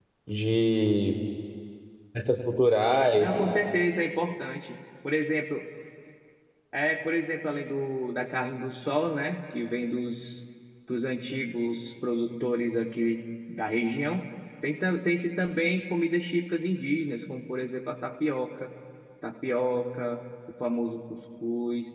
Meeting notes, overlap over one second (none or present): none